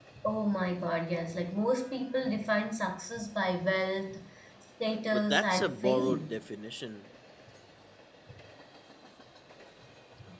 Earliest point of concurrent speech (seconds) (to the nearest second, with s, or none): 5 s